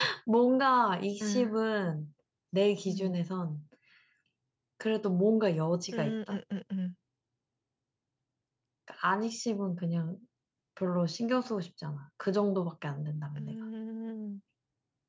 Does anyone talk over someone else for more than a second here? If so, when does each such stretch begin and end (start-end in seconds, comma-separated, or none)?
none